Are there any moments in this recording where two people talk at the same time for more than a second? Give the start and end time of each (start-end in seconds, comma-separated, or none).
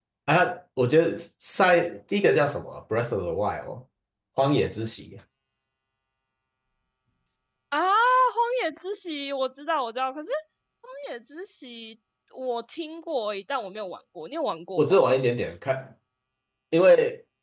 none